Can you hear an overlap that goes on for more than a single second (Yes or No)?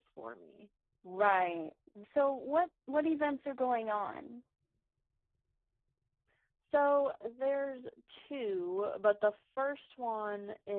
No